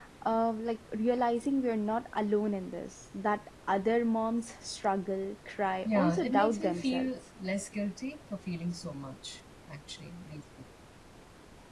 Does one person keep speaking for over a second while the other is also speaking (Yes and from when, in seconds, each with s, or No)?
Yes, from 5.8 s